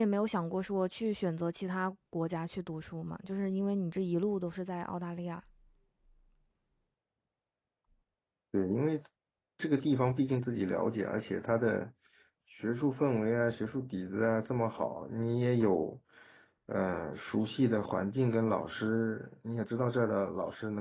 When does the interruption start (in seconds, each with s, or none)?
none